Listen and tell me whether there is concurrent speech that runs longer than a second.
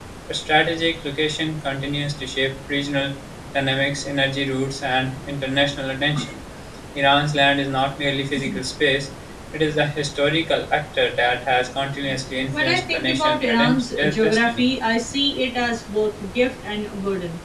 Yes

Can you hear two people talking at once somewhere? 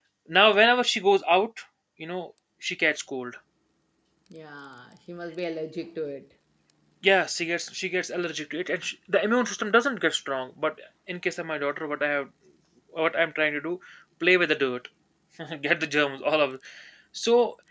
No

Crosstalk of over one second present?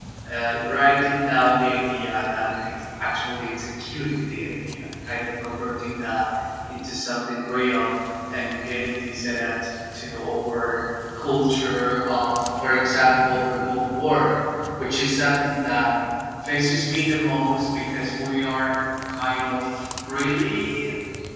No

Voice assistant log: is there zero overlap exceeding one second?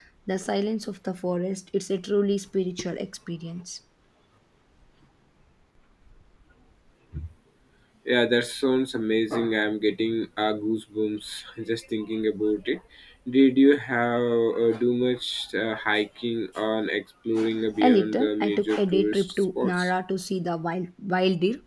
No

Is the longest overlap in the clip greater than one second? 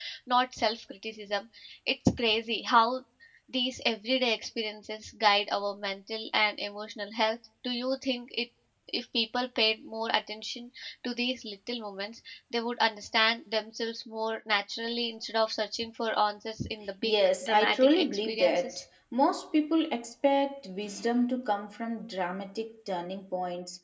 Yes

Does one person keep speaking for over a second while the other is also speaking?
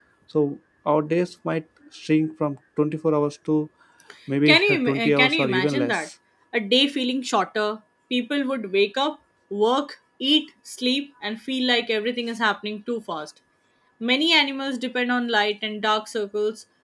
Yes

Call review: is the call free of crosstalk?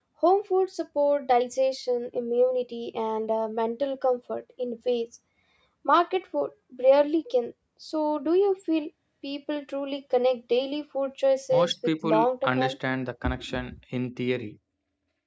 No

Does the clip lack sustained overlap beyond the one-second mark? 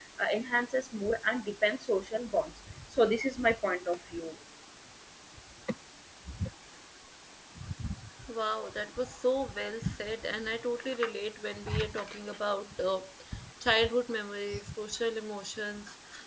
Yes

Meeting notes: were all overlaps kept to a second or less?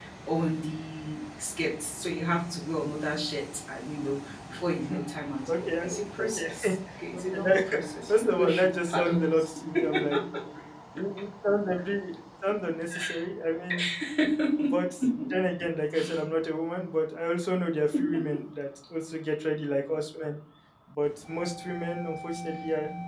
No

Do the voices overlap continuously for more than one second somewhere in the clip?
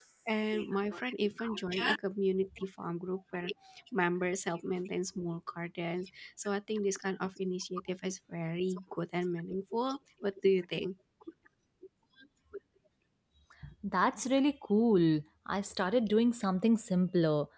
No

